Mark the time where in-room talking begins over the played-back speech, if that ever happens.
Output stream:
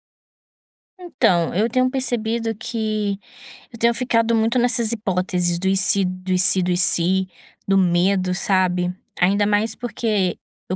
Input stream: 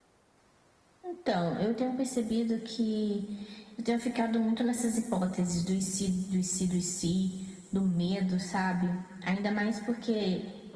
none

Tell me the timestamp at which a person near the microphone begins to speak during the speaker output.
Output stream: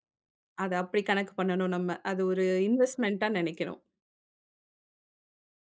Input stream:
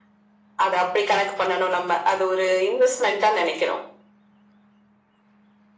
none

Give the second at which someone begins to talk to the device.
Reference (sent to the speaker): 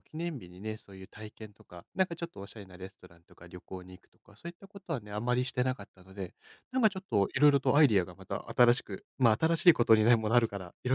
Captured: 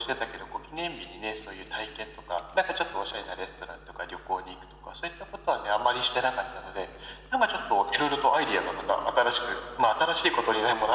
none

